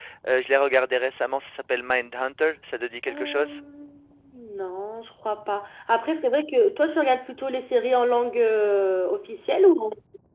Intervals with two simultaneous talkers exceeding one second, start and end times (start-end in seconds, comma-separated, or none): none